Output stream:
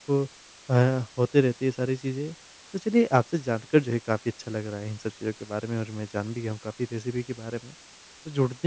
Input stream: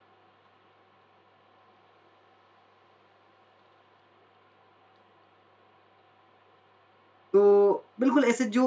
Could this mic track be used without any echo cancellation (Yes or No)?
Yes